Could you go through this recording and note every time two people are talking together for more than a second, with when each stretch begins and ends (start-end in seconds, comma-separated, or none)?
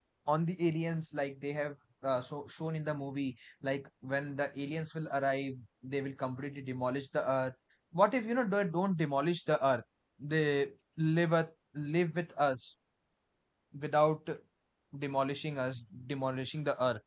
none